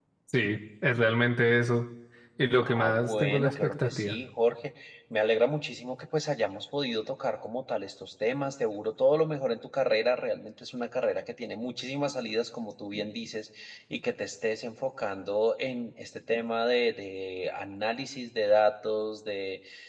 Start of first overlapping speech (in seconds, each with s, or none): 2.6 s